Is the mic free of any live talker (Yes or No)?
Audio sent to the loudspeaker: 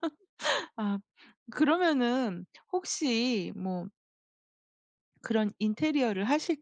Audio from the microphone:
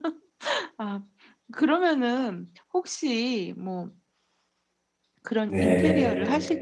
No